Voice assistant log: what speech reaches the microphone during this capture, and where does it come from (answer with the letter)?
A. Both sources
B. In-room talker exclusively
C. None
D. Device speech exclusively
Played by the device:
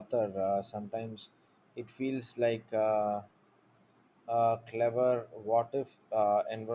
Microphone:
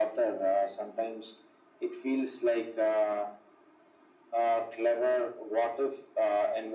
D